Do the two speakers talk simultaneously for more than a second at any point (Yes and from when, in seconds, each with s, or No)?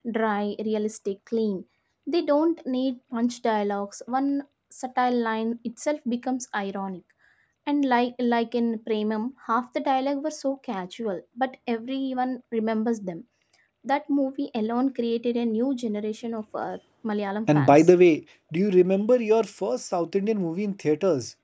No